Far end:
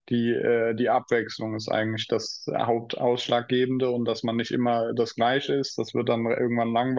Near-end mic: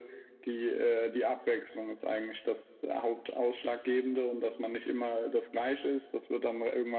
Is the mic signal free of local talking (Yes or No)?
Yes